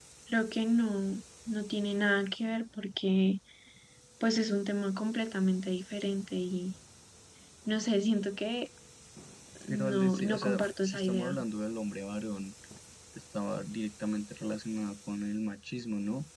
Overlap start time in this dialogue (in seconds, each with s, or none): 9.7 s